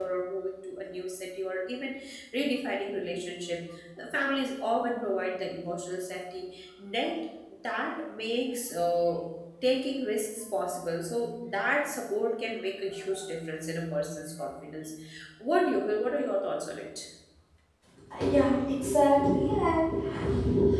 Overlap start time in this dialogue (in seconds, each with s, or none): none